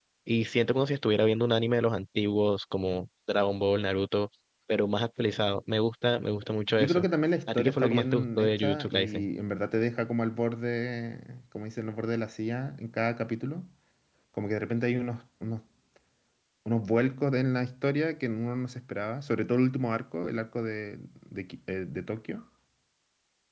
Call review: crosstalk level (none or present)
present